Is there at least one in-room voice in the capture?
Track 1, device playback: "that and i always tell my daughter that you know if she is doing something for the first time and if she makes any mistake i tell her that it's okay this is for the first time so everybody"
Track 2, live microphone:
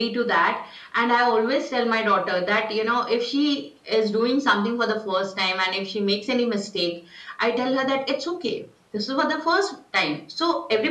No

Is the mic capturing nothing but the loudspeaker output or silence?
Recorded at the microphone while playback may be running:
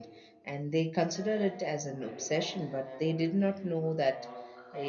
No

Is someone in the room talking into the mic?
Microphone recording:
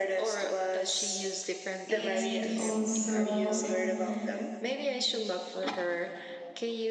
Yes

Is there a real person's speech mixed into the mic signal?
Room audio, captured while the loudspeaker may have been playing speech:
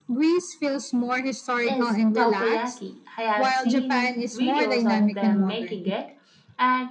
Yes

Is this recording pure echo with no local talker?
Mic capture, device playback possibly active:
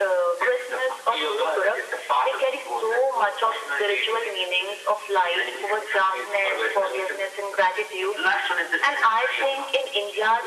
Yes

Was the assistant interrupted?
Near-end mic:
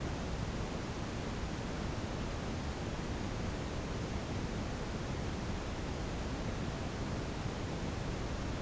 No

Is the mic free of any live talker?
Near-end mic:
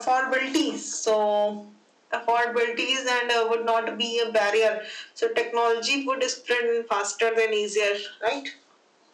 Yes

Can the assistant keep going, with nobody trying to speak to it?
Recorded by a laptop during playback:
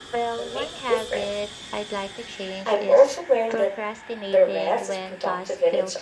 No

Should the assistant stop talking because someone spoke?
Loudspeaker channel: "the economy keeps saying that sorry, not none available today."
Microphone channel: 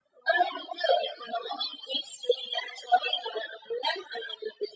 No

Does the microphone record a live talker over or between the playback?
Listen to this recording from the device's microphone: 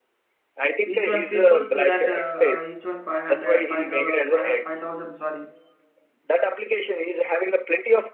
Yes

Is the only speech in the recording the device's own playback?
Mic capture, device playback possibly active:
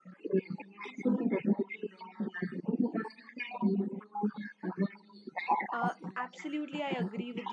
No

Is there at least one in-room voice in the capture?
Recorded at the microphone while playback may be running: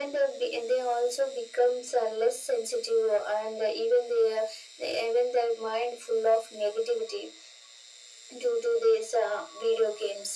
No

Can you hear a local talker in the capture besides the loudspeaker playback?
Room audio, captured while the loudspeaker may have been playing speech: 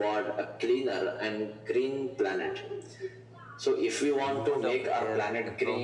Yes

